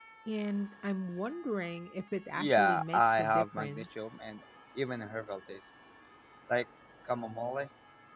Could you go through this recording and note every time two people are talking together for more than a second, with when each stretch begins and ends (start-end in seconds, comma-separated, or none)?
2.4-3.9